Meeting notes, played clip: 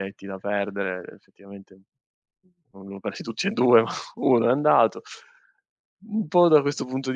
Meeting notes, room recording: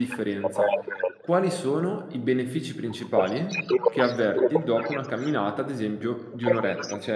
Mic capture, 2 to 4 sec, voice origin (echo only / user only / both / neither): both